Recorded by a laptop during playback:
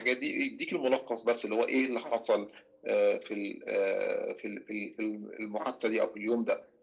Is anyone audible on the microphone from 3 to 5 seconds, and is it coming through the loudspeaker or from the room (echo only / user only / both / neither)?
echo only